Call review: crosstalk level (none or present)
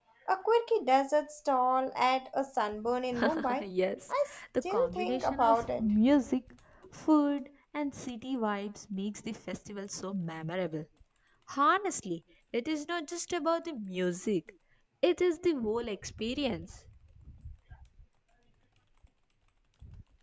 present